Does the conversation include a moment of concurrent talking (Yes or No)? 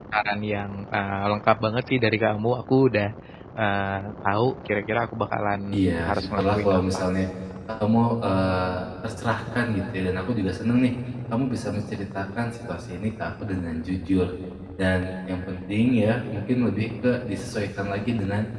Yes